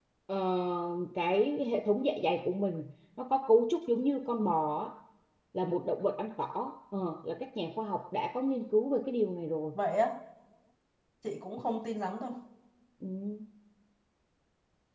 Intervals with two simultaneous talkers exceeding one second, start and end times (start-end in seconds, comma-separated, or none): none